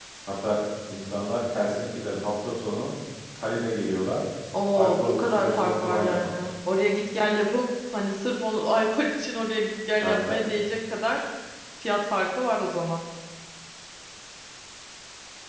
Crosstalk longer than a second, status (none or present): present